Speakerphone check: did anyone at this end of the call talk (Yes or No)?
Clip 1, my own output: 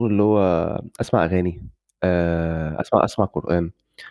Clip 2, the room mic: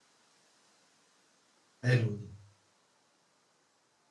Yes